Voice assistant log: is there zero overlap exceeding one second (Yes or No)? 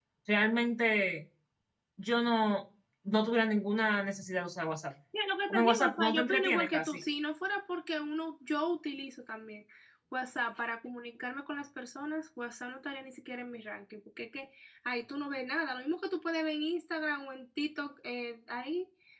No